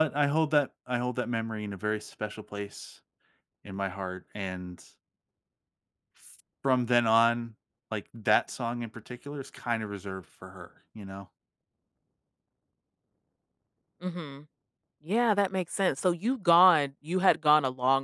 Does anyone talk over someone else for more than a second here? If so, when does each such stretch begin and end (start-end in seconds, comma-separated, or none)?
none